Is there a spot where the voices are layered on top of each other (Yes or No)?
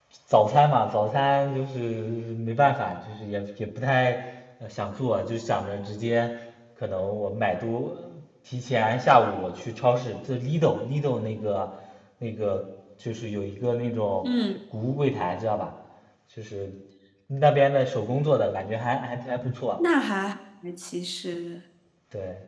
No